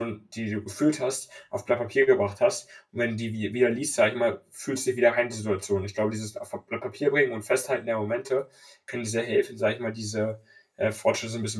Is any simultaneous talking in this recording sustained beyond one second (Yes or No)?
No